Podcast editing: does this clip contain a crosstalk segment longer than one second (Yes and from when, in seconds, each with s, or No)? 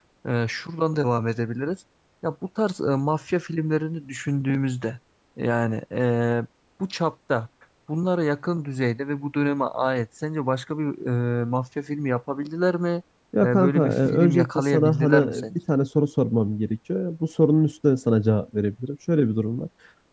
Yes, from 13.4 s